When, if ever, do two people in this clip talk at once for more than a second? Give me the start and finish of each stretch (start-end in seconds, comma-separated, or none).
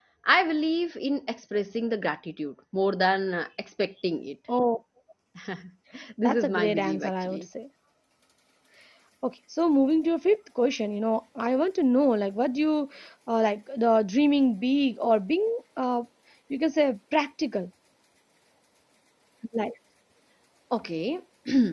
6.2-7.5